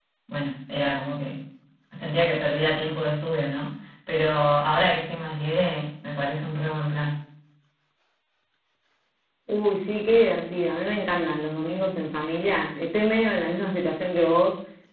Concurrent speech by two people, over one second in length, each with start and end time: none

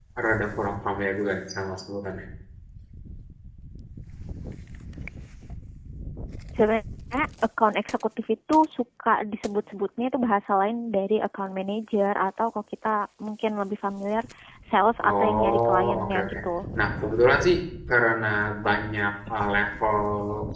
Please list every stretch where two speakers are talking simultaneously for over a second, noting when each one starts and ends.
15.1-16.3

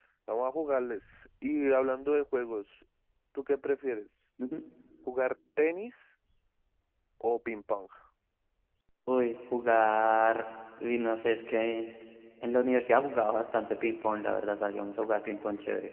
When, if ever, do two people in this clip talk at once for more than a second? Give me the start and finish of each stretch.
none

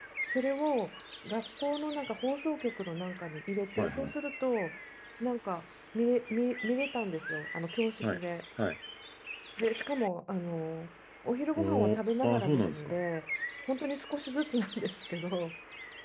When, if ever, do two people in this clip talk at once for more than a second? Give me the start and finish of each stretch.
11.6-12.9

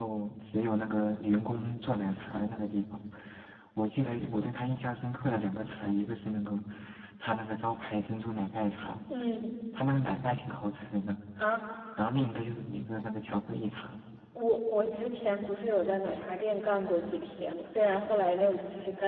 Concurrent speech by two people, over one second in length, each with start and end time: none

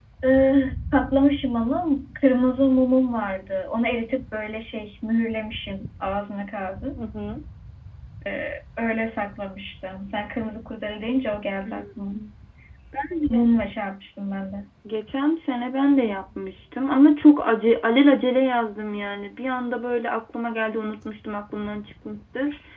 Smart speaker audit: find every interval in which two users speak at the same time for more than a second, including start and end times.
none

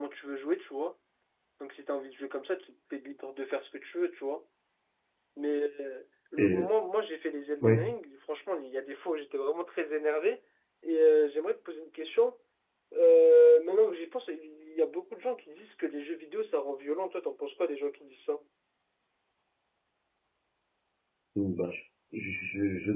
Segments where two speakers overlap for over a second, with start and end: none

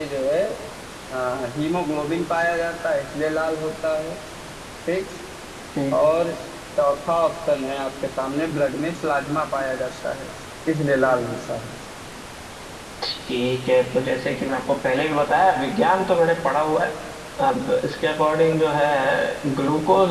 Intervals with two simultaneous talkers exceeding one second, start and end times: none

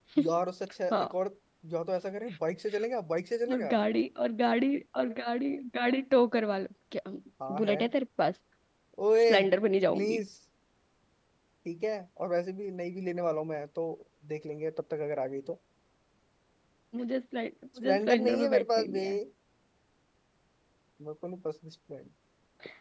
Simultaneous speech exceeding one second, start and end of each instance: 17.8-19.1

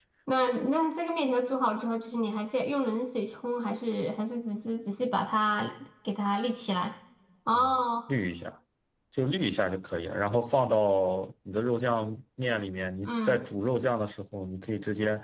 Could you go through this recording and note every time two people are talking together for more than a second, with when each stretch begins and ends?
none

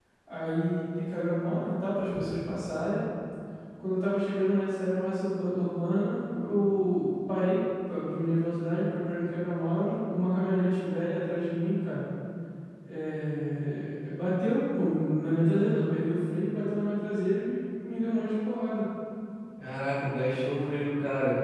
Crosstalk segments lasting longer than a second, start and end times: none

